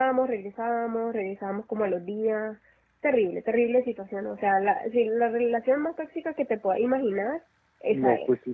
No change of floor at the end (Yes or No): No